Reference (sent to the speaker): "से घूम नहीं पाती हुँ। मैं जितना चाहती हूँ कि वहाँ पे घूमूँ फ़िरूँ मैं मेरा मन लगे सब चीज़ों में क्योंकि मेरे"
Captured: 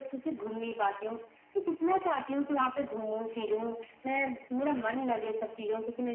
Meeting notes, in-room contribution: none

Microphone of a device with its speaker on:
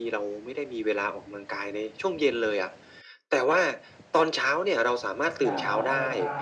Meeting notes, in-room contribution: present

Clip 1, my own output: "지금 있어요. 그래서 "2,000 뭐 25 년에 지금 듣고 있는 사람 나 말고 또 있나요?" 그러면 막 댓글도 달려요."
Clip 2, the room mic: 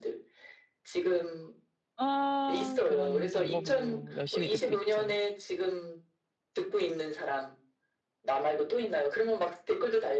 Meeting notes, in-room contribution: present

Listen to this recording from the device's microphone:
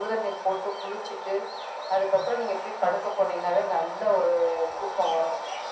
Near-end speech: none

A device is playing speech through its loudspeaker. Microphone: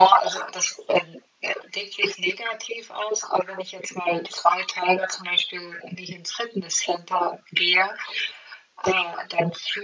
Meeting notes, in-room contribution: none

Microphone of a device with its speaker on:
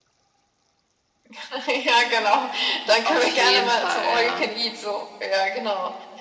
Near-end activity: present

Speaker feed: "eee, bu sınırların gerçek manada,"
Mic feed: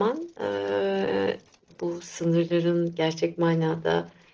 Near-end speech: none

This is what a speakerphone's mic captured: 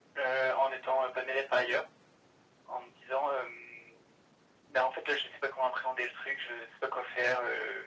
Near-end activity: none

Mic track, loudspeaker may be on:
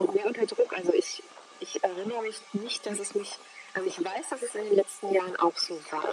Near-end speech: none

